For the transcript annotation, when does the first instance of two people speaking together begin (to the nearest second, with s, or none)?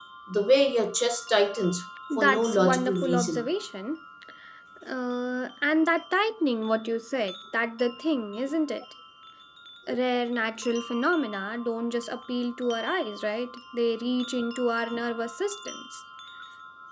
2 s